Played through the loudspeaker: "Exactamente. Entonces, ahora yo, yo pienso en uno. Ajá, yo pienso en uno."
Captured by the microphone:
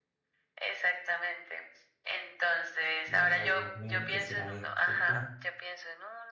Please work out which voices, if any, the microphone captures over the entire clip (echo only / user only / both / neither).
both